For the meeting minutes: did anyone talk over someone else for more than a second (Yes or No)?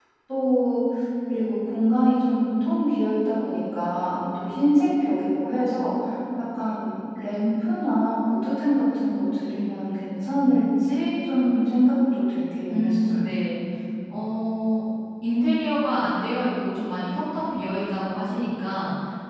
No